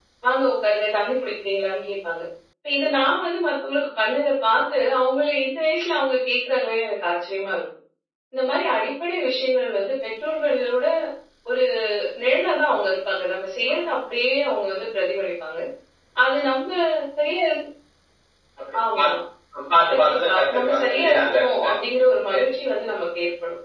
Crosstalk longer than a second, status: present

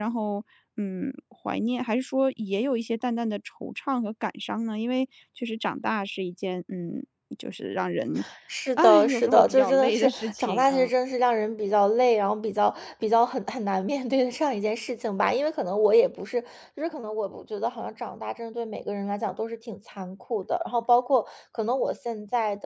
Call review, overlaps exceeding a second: present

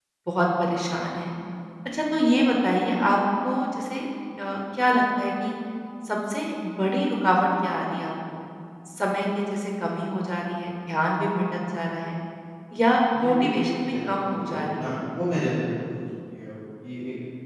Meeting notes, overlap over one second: present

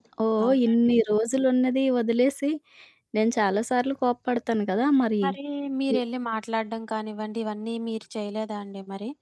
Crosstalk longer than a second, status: none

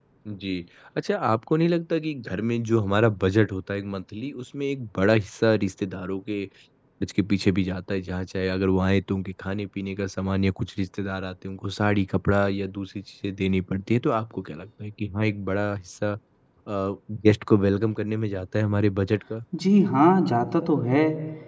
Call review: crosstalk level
none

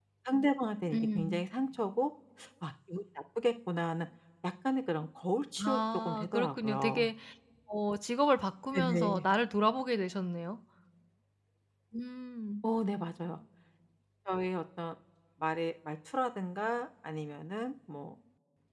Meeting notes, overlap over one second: present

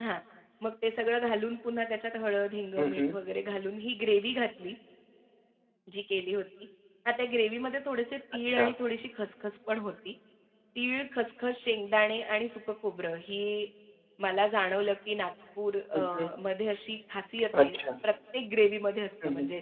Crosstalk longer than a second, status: none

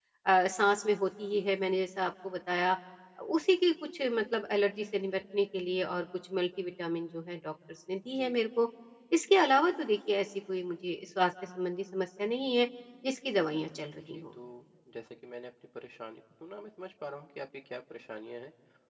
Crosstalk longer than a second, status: none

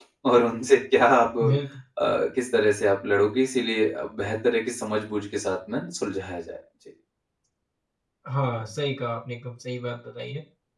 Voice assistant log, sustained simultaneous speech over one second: none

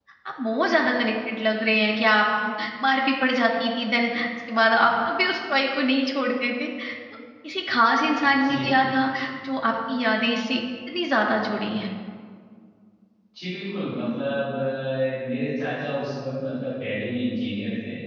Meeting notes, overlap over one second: none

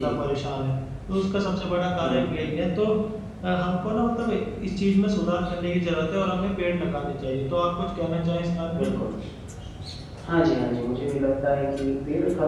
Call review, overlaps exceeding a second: none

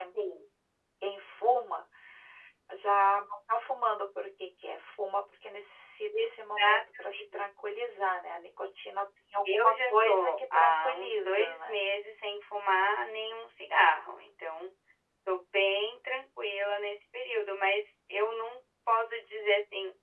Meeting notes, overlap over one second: present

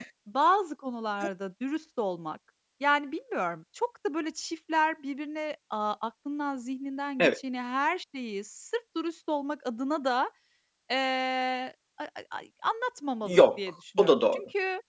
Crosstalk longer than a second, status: present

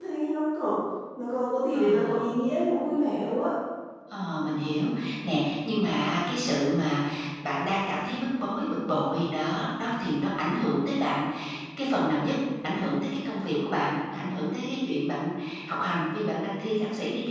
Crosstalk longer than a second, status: none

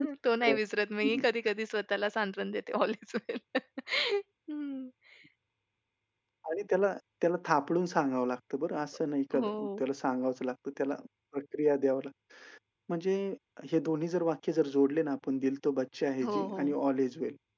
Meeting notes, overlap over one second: none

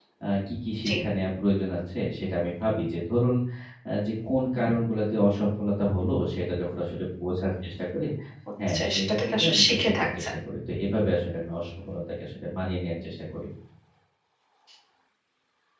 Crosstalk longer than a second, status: present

